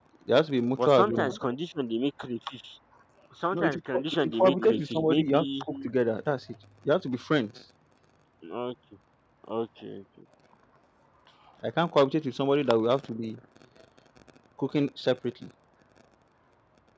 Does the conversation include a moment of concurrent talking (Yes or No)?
Yes